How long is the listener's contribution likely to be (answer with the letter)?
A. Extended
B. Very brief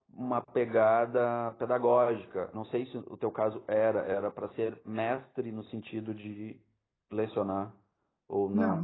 A